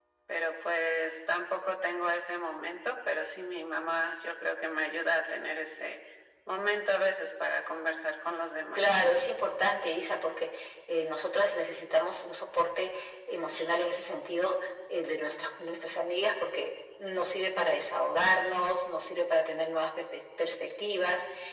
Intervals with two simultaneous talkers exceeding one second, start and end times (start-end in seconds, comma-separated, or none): none